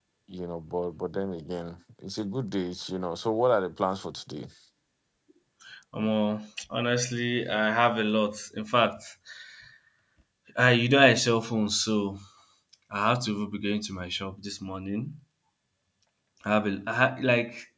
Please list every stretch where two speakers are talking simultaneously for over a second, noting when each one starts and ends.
none

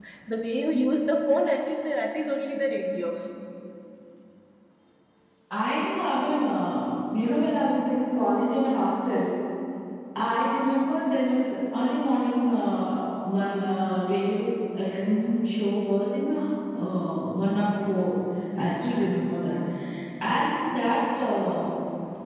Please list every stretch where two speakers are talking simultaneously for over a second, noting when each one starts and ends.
none

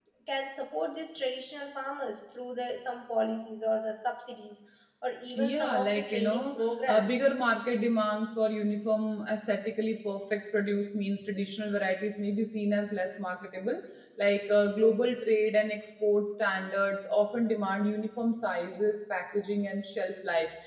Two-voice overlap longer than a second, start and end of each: 5.4-7.3

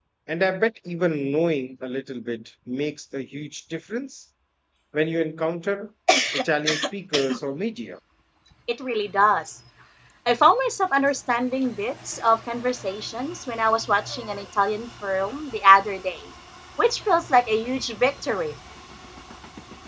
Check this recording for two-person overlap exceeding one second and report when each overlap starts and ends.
none

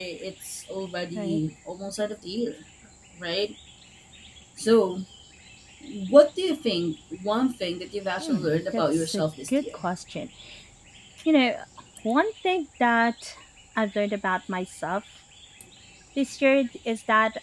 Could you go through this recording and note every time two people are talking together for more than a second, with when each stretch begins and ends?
8.2-9.8

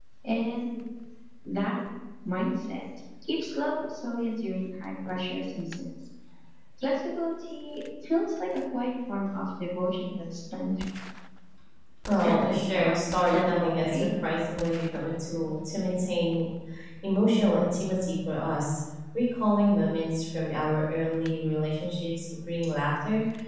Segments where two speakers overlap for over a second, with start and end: 12.2-14.1

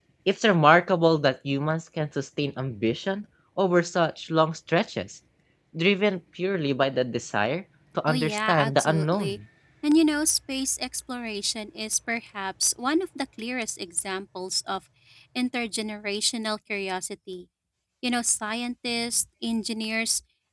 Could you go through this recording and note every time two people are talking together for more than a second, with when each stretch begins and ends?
8.1-9.4

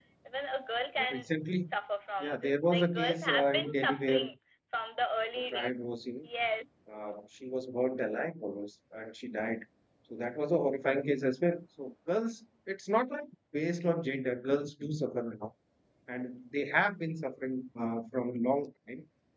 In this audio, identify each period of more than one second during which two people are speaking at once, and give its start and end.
2.2-4.3

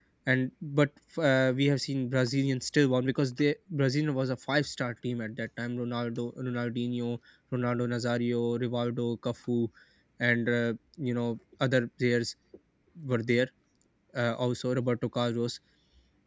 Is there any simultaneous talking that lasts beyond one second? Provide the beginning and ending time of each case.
none

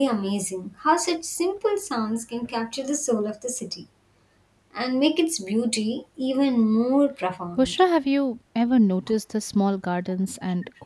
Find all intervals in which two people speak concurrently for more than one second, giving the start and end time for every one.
none

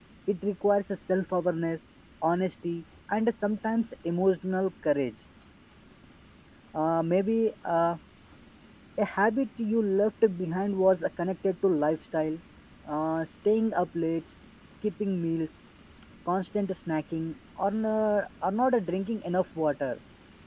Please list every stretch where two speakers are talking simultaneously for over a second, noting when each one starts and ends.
none

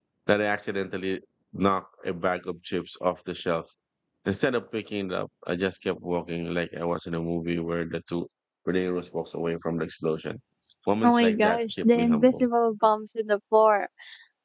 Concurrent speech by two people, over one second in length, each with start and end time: 11.0-12.5

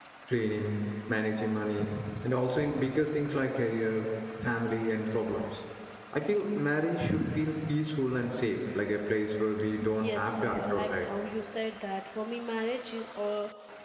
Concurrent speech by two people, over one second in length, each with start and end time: 9.8-11.1

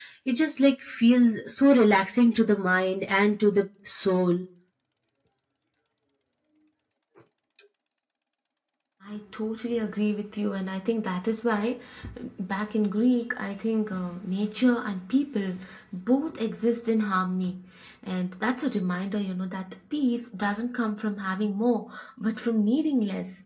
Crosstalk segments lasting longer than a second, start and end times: none

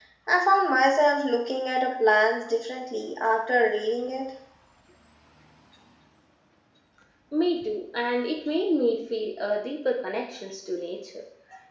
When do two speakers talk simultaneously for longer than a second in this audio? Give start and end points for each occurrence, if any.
none

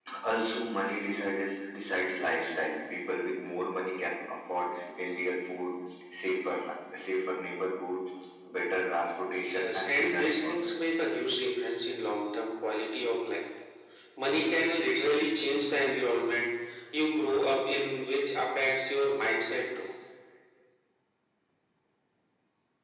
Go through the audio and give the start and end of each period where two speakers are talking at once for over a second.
9.4-10.8

